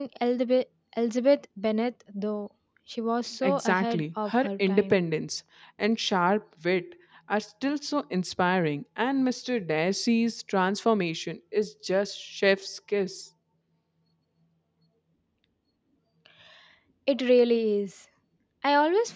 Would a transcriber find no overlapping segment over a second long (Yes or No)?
No